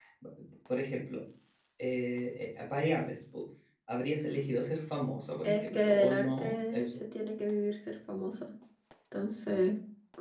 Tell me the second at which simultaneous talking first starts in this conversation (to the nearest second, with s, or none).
5 s